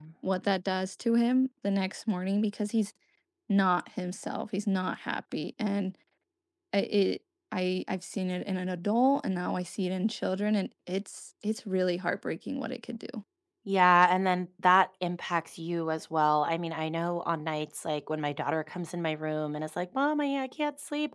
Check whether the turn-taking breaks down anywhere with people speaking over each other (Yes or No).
No